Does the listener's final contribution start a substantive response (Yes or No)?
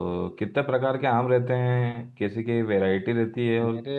No